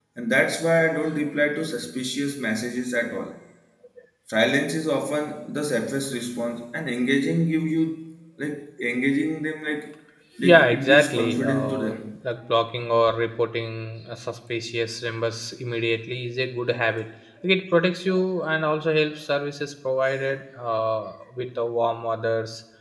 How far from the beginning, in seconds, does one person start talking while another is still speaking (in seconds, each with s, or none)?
10.4 s